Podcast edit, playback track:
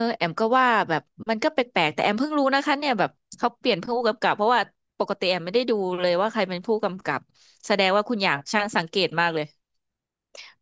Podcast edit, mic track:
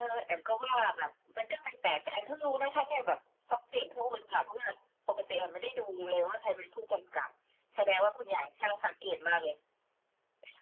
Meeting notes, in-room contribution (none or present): none